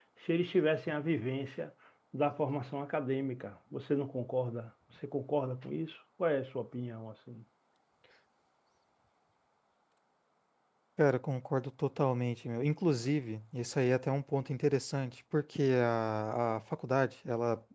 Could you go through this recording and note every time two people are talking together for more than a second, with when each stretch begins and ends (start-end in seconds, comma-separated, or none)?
none